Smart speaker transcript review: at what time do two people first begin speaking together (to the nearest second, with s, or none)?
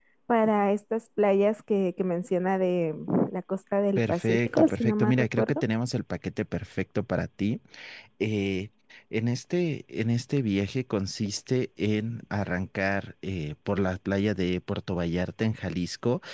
4 s